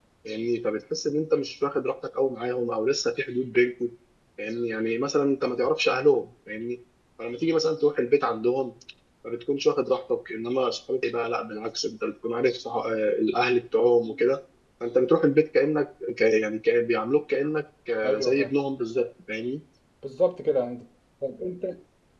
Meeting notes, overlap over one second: none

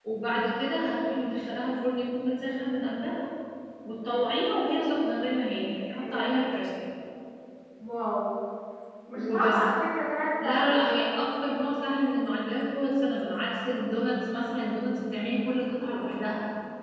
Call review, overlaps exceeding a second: none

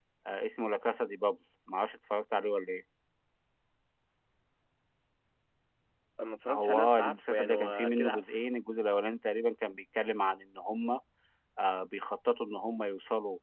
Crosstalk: present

